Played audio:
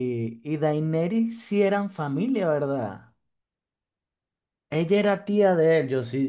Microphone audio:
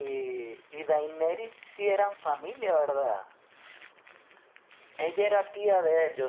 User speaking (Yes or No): No